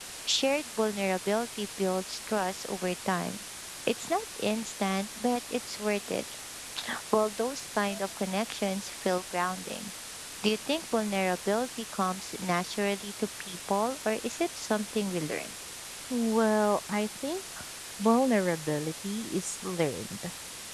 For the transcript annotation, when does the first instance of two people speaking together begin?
none

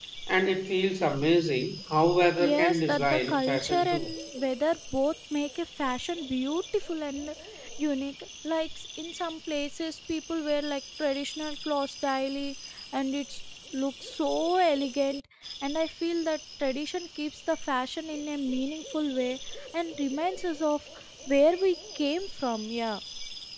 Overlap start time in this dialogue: 2 s

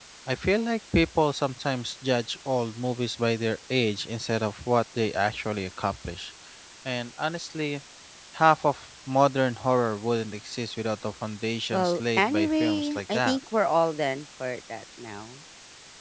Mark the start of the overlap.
12 s

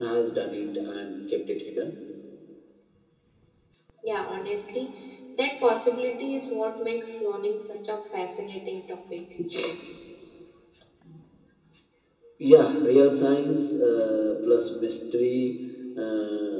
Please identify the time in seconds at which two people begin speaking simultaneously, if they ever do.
none

